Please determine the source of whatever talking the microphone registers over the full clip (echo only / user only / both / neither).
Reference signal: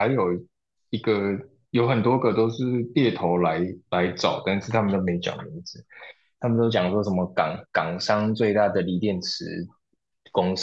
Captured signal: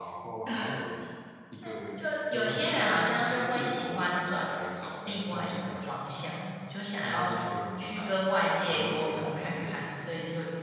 both